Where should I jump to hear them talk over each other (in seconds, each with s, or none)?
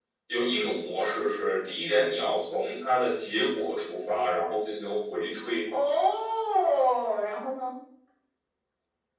none